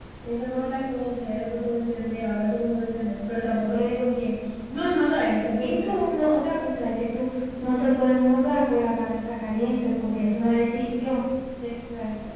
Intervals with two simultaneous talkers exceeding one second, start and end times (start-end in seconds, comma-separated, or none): none